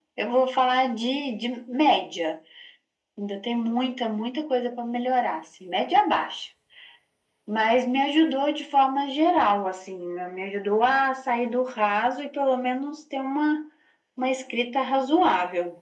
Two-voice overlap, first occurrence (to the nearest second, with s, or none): none